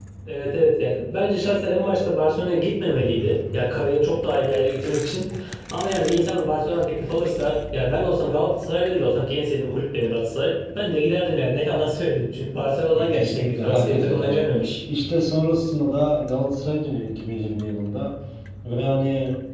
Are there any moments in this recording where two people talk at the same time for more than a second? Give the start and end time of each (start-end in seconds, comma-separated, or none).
13.0-14.4